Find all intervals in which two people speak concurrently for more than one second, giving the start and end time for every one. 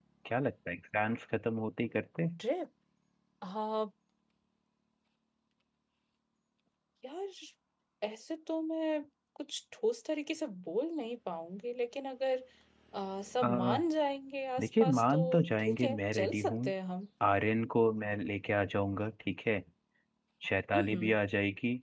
14.6-16.6

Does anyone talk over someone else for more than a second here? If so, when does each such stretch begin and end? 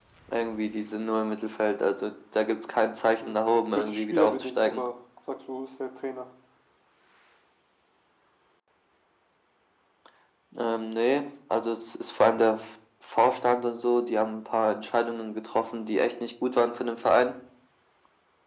3.2-4.8

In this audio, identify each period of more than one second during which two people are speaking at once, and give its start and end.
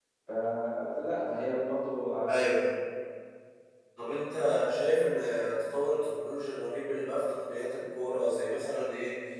none

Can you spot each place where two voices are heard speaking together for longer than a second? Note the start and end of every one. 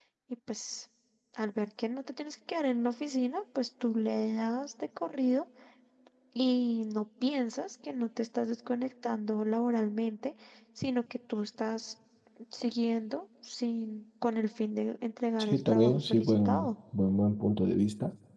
15.4-16.7

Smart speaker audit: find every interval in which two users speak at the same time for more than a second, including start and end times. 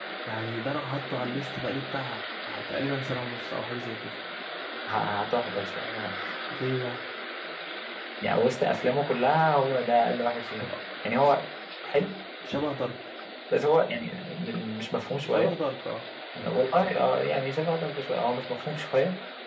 none

